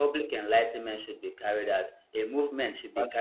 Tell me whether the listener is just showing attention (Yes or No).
Yes